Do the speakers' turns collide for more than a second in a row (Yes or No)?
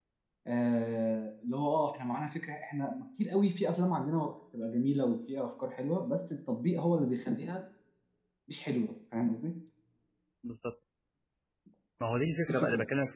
No